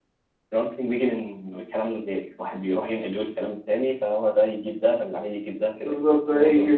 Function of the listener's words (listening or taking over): taking over